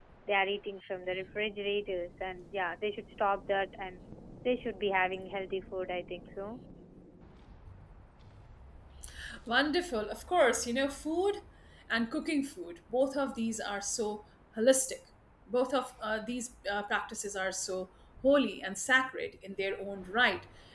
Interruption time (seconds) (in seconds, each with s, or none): none